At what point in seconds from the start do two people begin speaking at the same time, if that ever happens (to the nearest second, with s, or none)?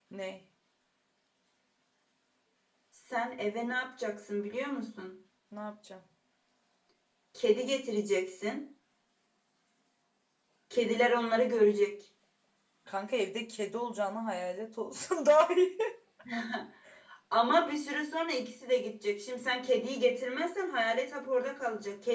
none